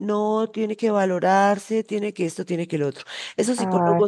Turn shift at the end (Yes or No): No